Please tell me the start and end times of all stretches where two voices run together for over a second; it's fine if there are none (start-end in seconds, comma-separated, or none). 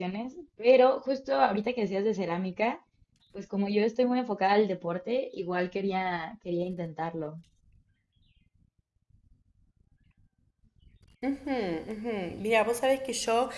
none